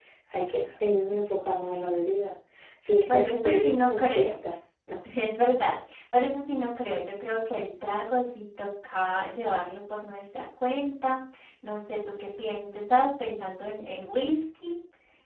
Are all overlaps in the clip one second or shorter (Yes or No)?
No